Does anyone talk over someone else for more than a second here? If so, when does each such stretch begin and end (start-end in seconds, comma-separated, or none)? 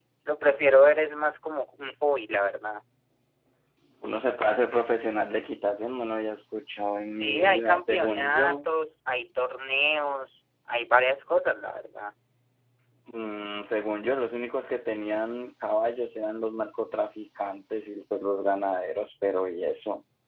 7.1-8.7